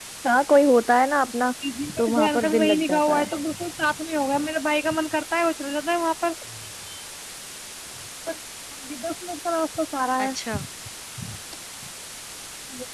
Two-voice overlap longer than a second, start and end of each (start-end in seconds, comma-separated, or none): 2.0-3.2